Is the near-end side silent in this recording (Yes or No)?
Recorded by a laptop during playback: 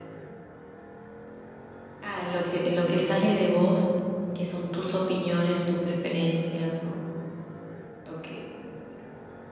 No